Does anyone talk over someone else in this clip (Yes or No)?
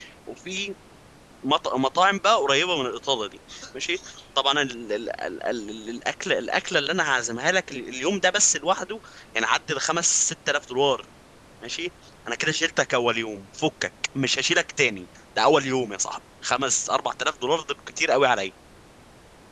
No